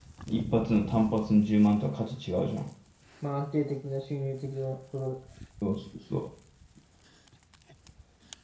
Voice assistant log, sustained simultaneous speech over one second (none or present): none